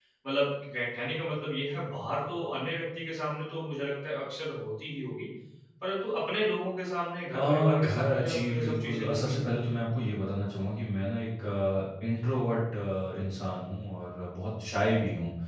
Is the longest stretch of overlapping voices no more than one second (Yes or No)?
No